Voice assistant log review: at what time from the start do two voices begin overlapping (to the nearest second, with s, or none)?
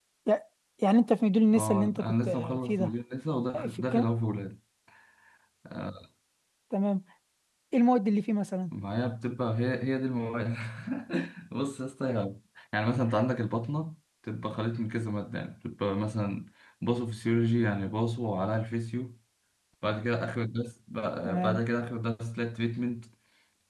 2 s